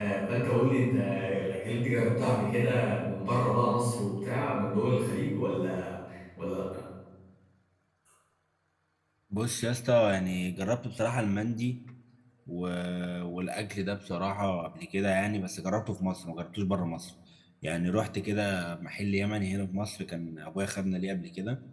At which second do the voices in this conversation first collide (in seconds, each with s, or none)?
none